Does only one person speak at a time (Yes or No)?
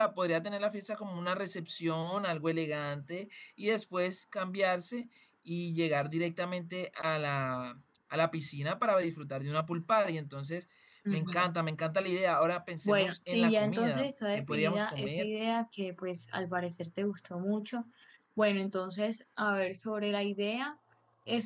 No